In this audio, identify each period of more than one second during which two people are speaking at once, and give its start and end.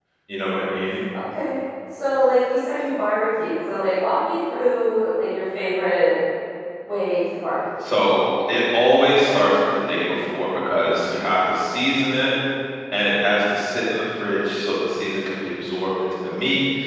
none

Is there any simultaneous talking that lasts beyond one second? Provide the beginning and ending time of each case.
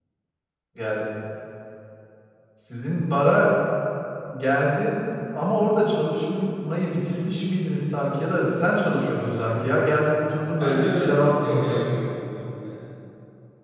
10.6-11.8

